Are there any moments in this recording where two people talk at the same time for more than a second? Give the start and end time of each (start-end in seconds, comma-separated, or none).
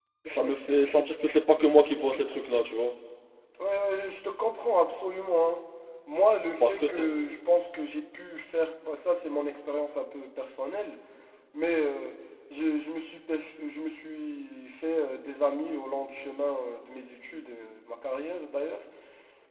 none